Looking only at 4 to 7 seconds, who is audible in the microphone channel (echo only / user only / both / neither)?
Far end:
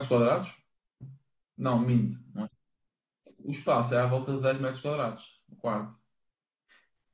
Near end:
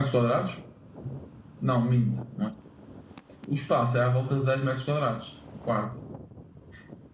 echo only